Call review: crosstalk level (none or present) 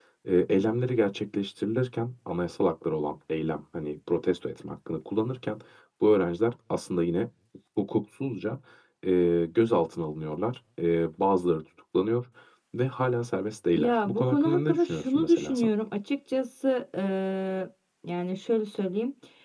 present